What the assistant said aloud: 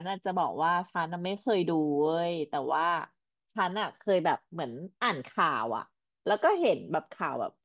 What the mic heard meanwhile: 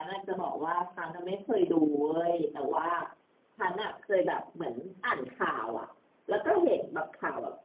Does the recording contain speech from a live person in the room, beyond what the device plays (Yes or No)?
No